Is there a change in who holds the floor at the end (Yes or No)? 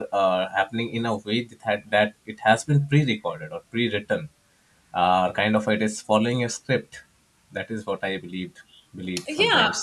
Yes